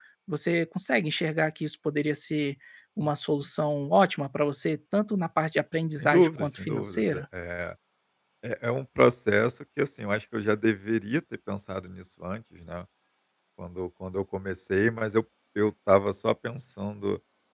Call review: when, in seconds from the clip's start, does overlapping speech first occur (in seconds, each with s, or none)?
5.9 s